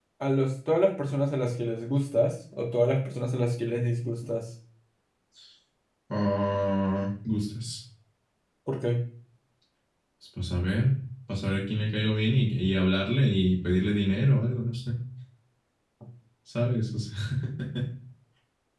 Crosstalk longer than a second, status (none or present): none